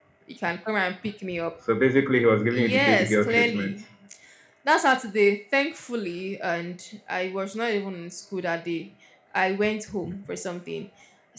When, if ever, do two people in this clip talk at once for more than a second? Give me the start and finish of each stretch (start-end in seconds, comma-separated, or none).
2.5-3.7